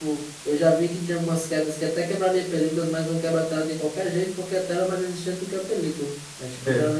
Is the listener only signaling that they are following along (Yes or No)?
Yes